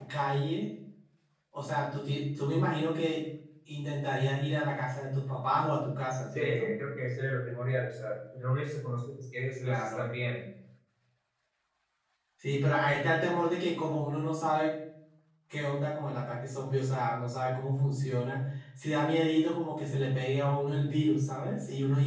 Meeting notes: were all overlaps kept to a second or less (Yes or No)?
Yes